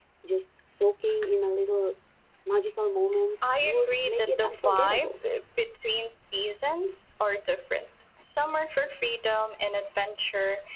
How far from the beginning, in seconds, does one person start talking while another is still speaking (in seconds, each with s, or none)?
3.4 s